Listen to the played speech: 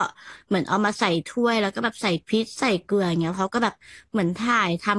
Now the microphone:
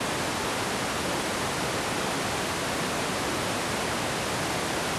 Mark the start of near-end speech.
none

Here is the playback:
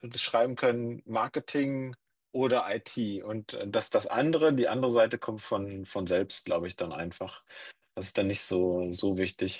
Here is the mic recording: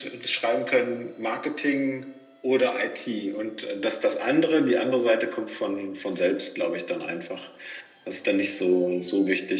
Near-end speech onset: none

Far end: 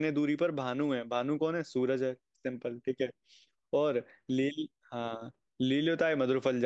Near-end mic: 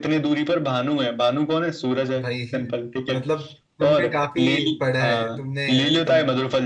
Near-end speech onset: 2.2 s

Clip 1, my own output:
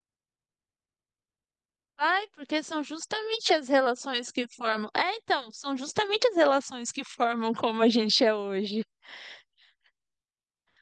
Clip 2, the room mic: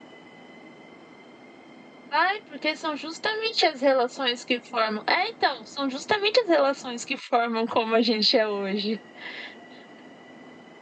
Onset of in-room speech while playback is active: none

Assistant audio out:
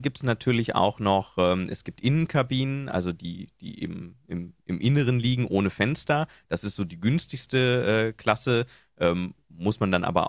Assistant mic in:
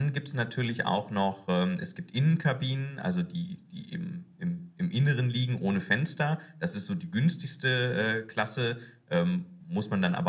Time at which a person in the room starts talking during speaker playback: none

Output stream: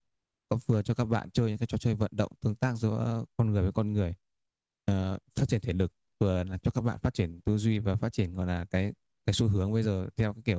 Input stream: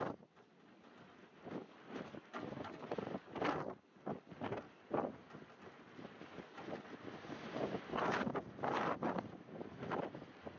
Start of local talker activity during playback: none

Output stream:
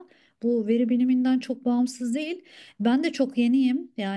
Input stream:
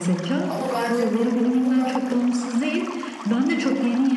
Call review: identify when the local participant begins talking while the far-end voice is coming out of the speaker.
0.5 s

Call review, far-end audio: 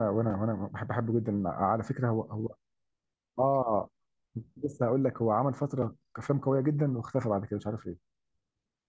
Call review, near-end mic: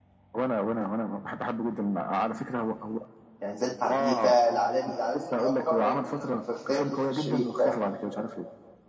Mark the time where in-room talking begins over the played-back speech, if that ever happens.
3.4 s

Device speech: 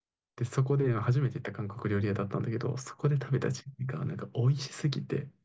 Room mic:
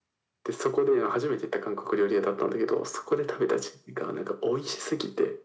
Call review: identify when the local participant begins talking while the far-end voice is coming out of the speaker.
none

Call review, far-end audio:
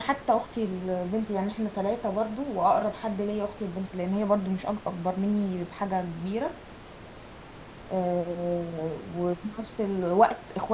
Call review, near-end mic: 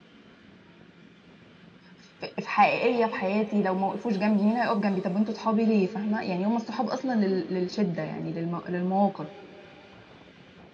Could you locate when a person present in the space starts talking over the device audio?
1.9 s

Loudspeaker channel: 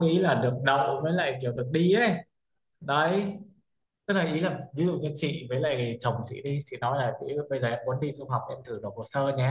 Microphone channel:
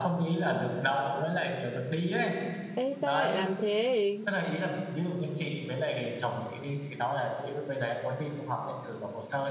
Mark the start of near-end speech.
2.7 s

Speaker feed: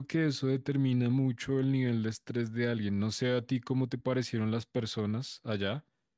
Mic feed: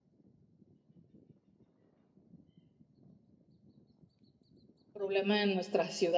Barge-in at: 4.9 s

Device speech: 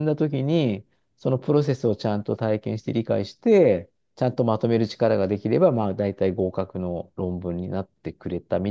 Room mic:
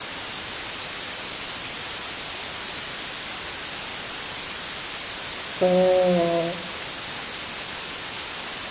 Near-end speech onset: 5.6 s

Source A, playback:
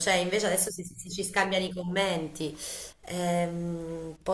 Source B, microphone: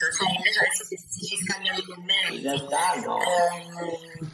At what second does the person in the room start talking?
2.2 s

